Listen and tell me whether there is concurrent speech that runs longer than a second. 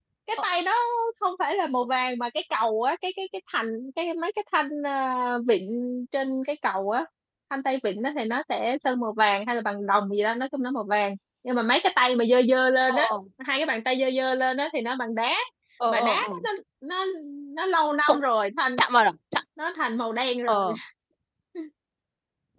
No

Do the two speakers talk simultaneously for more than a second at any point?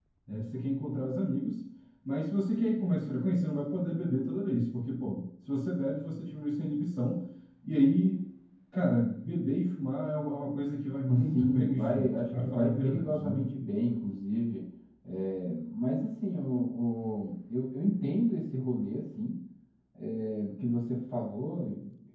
Yes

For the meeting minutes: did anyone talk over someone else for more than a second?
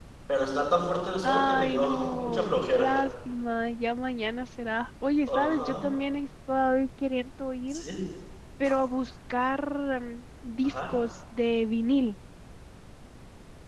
Yes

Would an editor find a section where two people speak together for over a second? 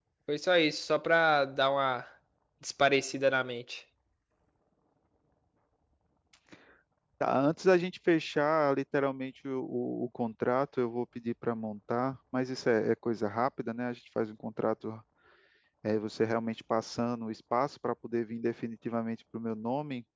No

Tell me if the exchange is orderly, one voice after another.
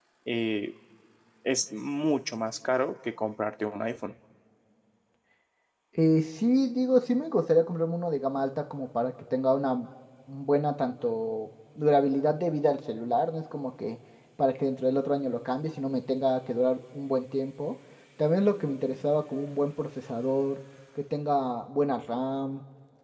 Yes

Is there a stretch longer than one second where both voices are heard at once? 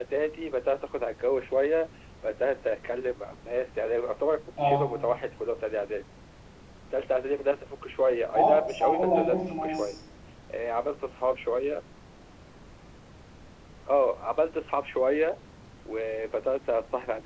Yes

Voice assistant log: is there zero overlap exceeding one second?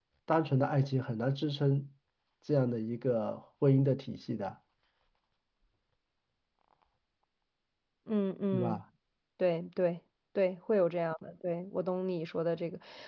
Yes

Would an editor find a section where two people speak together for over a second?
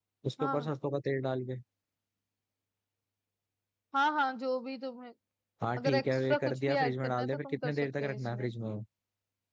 Yes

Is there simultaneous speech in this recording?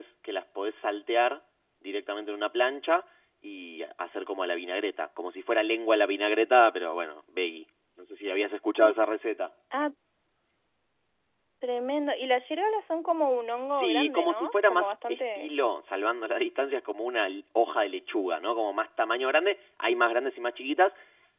Yes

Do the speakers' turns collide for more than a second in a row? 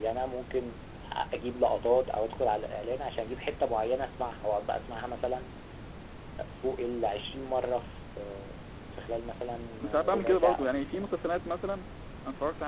Yes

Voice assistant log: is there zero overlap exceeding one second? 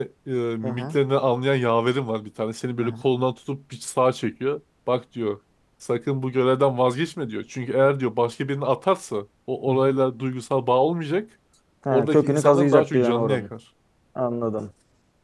No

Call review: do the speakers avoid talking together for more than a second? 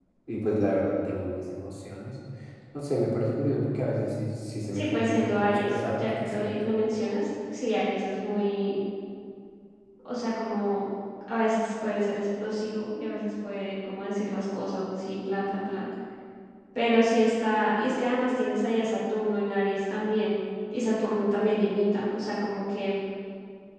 No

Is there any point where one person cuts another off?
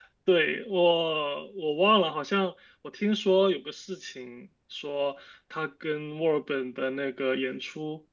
No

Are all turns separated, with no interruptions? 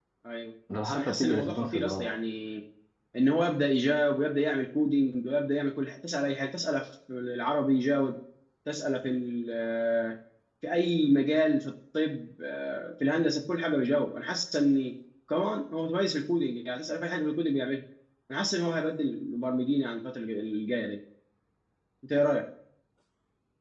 No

